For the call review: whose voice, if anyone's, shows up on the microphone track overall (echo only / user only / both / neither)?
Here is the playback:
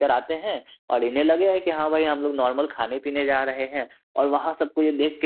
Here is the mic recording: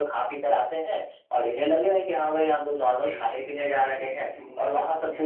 both